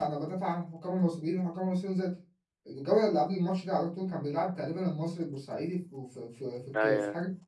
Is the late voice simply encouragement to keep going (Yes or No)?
Yes